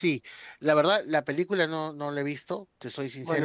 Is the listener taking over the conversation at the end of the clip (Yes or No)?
Yes